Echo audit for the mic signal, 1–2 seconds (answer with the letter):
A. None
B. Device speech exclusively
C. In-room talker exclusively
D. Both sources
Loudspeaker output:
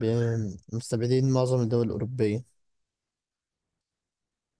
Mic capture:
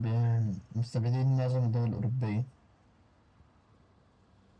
B